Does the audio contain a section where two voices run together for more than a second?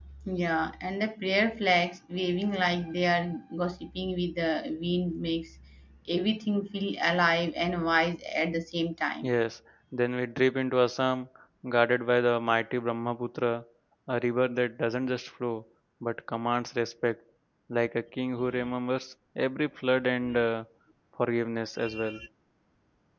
No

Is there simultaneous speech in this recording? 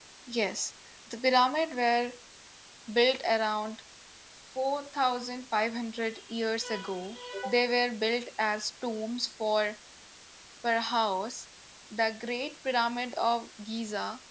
No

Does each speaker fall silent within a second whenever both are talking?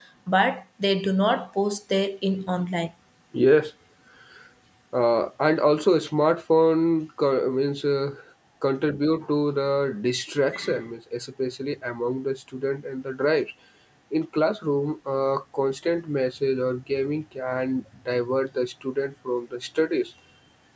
Yes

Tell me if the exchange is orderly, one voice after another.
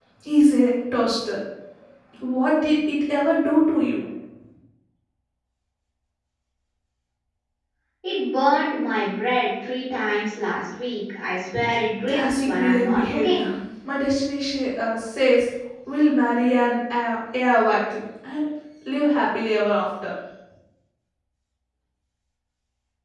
No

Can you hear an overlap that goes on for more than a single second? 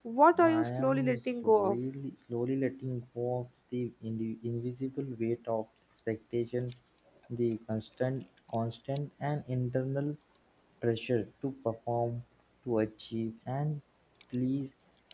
Yes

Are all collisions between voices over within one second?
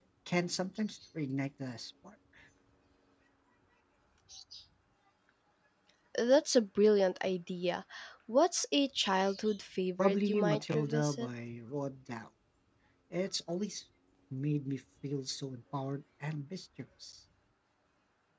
No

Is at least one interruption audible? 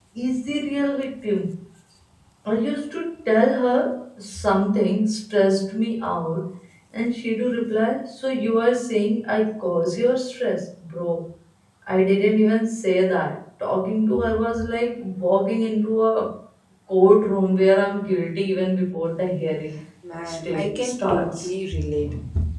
Yes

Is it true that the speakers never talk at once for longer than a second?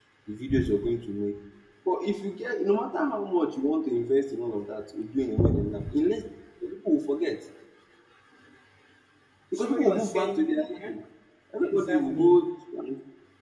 No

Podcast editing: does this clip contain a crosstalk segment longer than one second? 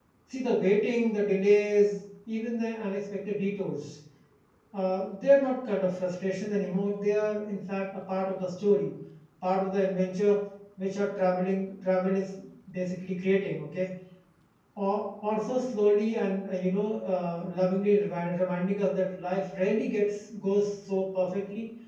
No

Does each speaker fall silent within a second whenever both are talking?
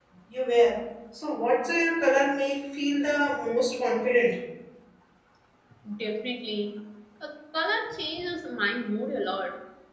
Yes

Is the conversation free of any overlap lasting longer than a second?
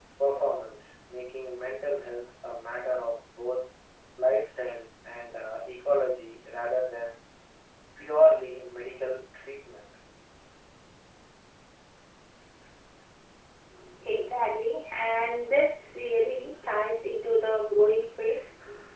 Yes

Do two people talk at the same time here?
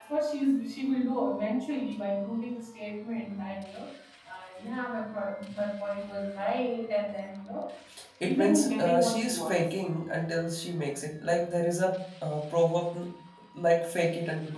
Yes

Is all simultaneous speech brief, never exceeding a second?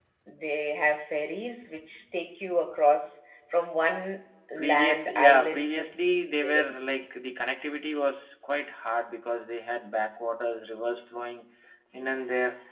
No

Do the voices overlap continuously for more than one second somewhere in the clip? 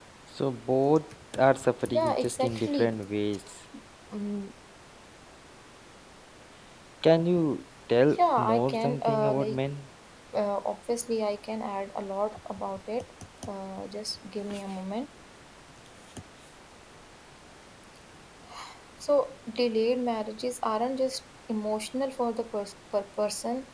Yes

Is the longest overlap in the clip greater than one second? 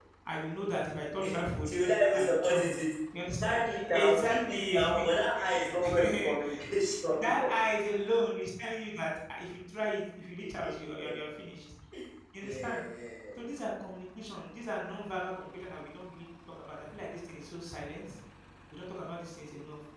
Yes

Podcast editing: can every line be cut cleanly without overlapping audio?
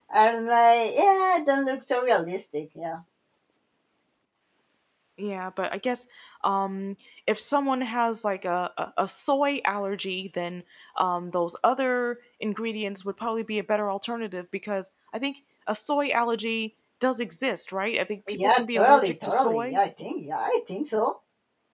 No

